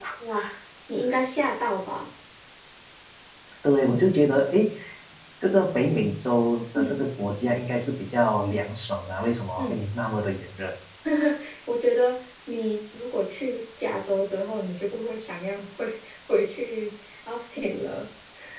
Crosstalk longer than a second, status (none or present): none